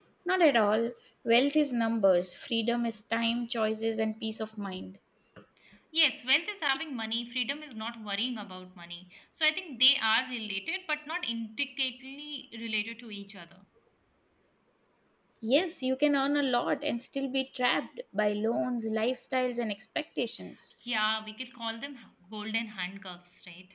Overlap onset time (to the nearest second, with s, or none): none